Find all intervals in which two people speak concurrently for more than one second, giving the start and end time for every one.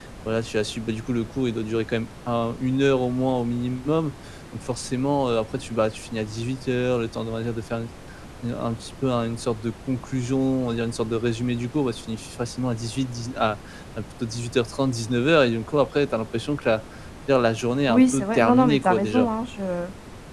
17.9-19.3

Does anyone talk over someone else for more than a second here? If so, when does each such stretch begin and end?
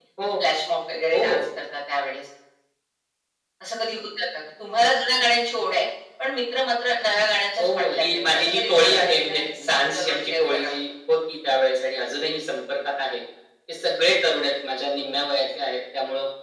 7.6-10.8

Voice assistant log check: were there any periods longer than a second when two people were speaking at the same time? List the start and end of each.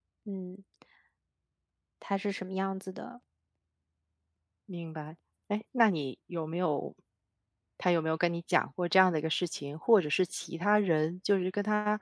none

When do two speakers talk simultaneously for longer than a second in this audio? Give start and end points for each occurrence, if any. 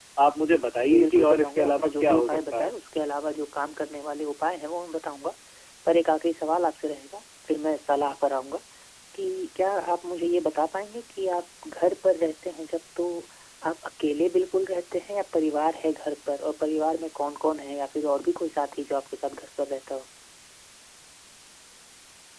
0.8-2.7

